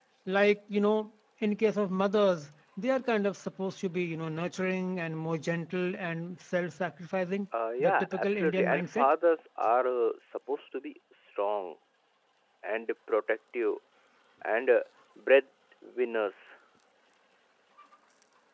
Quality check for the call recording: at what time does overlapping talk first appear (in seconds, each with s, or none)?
7.8 s